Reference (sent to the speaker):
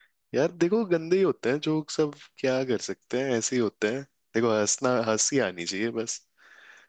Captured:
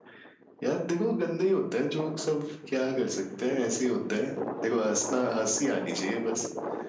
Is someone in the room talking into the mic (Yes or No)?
No